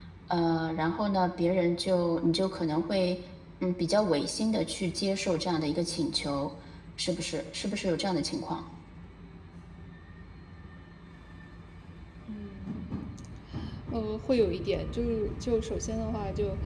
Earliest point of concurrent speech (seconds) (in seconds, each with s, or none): none